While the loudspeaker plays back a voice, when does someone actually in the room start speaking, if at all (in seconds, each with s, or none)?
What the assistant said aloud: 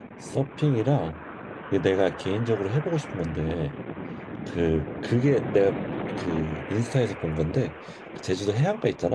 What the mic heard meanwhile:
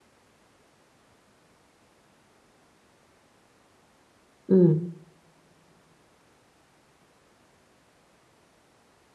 4.5 s